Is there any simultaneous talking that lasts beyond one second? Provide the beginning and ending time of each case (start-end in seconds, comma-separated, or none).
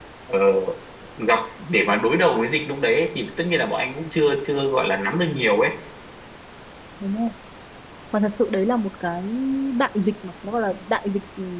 none